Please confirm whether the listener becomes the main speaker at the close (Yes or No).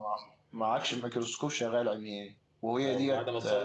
Yes